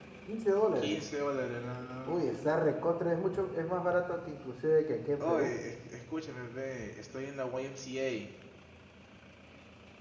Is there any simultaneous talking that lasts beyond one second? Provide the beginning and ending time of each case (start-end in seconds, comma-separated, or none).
none